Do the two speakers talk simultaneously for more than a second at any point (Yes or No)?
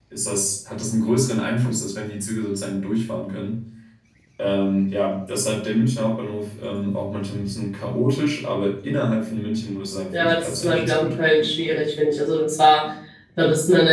Yes